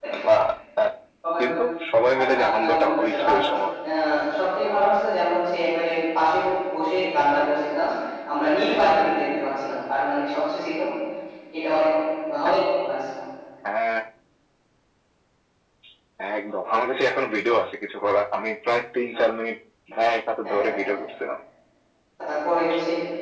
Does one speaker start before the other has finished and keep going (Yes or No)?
Yes